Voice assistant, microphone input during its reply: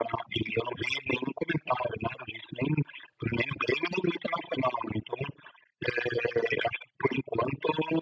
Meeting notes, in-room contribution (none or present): none